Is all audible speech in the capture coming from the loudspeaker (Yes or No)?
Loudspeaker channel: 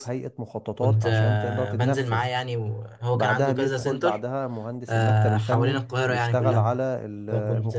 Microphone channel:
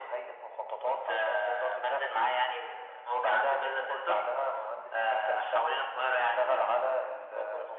Yes